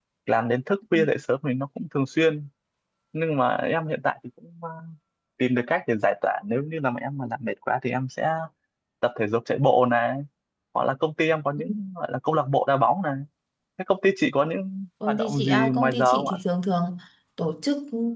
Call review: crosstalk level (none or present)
present